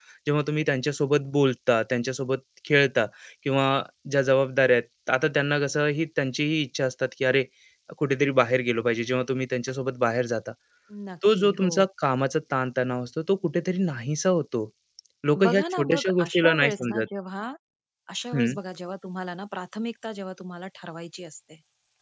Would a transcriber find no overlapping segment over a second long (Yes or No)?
No